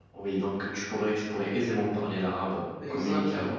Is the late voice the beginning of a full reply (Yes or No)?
Yes